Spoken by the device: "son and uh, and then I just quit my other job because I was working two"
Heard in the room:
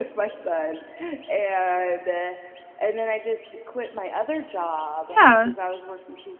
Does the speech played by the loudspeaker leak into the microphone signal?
Yes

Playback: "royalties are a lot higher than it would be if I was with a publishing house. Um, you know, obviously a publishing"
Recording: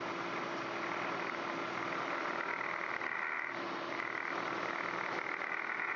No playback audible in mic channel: Yes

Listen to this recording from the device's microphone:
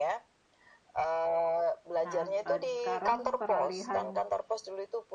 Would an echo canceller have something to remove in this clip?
Yes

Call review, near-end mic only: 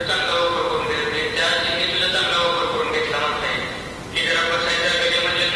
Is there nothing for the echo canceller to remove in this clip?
No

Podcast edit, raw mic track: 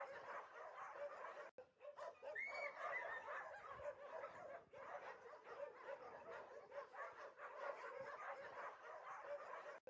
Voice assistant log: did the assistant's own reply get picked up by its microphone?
No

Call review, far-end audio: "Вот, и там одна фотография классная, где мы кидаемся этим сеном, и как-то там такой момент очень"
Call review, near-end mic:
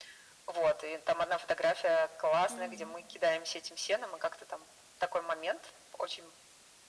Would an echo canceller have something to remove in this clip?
Yes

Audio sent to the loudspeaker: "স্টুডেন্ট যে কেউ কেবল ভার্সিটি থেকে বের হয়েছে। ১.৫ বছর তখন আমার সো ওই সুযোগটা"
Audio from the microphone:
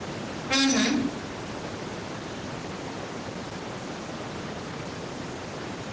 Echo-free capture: Yes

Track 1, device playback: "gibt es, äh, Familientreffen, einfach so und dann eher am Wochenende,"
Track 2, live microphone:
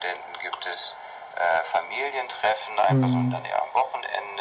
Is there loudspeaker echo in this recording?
Yes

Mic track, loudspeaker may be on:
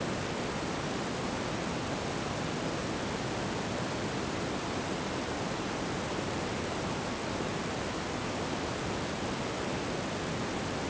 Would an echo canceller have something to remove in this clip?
No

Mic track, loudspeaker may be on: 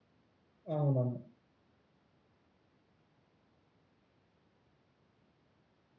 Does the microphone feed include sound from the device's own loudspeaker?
No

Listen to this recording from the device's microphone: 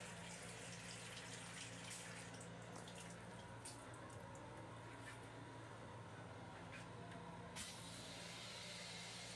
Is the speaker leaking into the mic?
No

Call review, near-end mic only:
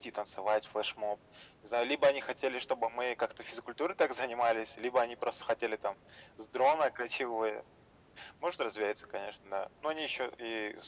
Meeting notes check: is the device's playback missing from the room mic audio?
No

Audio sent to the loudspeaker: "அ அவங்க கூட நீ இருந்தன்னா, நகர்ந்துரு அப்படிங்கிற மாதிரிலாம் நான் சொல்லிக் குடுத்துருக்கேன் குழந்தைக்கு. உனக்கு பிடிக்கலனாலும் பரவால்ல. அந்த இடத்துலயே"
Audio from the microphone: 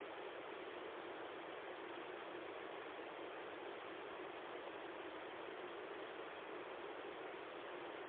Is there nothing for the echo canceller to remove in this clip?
Yes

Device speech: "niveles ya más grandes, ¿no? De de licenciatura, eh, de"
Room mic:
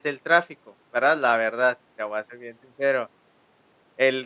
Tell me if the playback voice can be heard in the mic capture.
No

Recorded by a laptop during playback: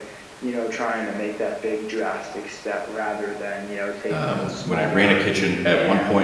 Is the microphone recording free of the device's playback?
No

